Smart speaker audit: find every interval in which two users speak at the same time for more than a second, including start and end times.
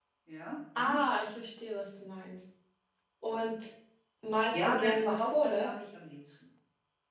4.5-5.7

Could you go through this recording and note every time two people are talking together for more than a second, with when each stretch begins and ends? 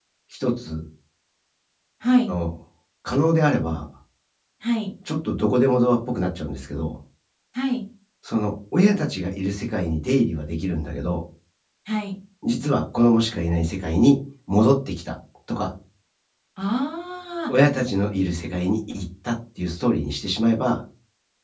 none

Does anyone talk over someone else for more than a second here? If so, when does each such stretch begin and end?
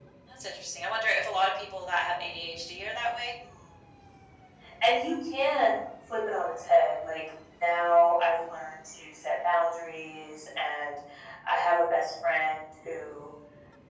none

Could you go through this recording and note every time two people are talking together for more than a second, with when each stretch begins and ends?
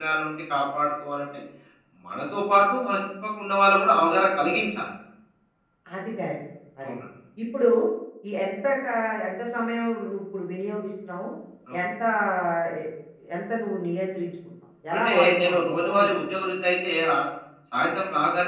15.0-16.2

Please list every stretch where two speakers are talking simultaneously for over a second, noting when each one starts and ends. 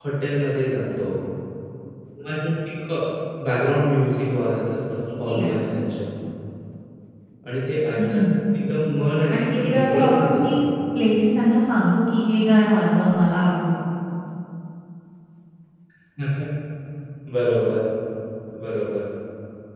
9.3-10.7

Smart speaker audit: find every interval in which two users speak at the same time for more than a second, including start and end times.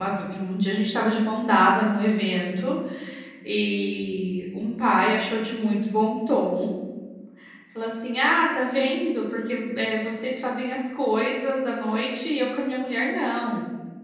none

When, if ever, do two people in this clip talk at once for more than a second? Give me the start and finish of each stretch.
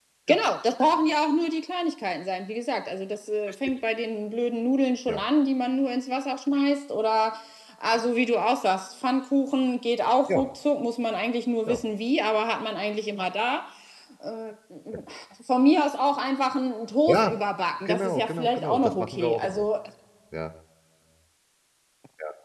17.9-19.6

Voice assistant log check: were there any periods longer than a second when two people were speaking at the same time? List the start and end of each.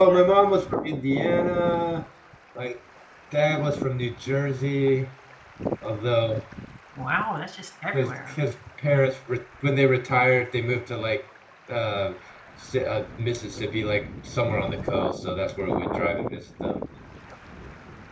none

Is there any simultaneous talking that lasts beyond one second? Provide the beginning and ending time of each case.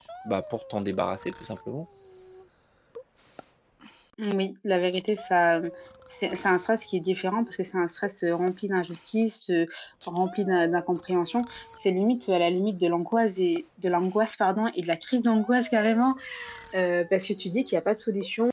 none

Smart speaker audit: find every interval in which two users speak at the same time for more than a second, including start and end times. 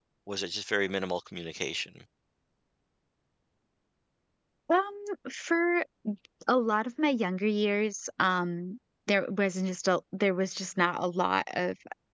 none

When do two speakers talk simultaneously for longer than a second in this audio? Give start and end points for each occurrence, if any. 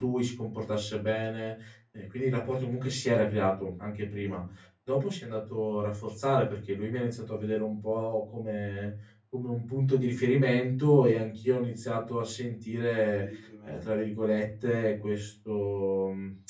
none

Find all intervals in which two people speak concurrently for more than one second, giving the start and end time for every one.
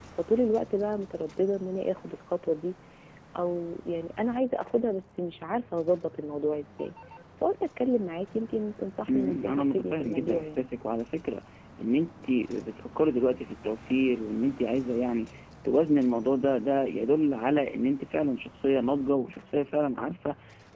9.1-10.7

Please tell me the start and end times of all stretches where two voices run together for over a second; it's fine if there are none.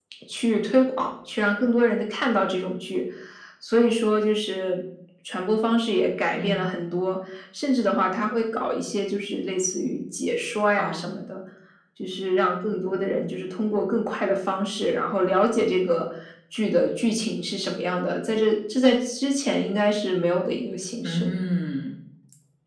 none

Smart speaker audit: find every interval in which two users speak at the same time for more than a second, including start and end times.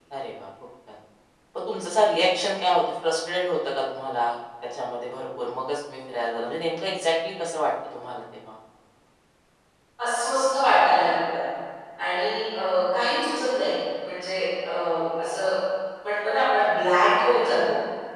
none

